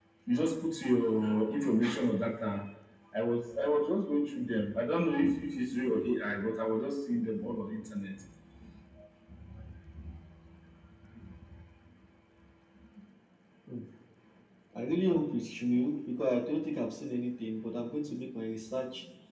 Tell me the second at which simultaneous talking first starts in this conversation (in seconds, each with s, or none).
none